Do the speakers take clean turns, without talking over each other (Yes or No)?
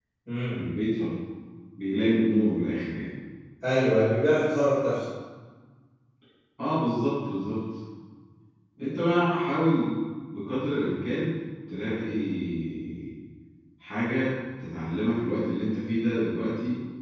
Yes